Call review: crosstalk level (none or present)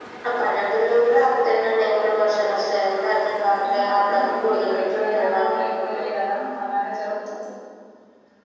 present